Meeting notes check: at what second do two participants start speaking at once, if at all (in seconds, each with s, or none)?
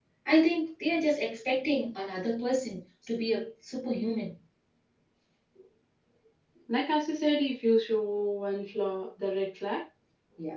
none